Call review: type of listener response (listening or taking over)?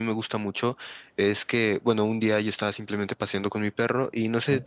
listening